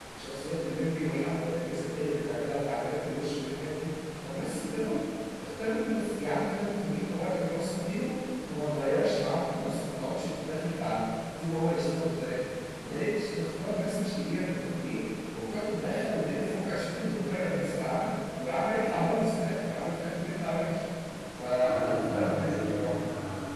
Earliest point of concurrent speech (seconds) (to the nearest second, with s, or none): 22 s